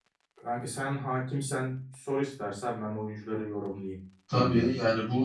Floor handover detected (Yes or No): Yes